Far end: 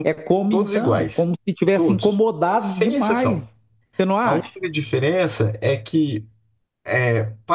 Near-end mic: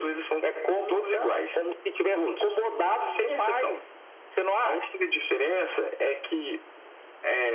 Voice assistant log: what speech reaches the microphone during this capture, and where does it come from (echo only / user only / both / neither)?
echo only